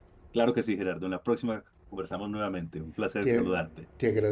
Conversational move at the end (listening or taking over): taking over